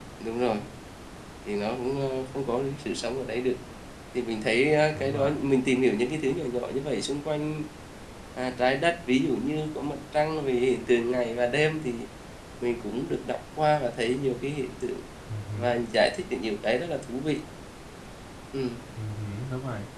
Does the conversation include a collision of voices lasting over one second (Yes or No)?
No